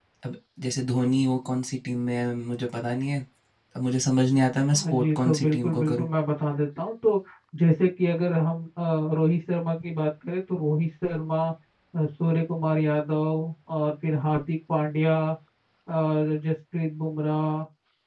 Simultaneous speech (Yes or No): Yes